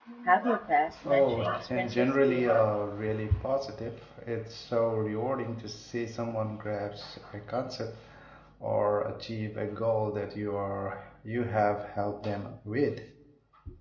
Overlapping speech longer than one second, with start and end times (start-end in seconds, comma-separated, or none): 1.1-2.5